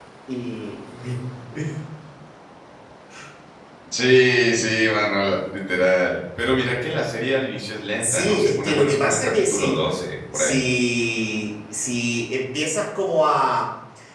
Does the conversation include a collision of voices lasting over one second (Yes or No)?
Yes